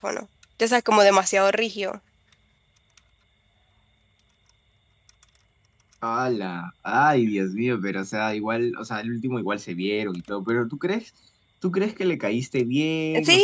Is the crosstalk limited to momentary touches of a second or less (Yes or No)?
Yes